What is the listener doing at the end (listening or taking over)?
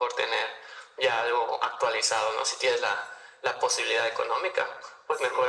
listening